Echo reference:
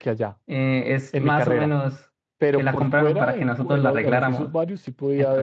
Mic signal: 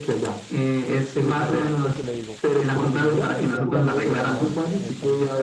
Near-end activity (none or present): present